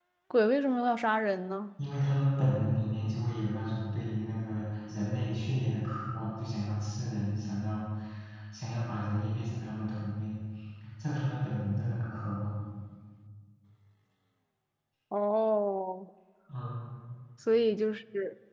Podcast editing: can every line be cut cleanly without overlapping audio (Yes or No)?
Yes